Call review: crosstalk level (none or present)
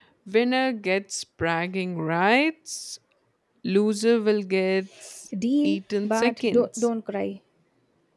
present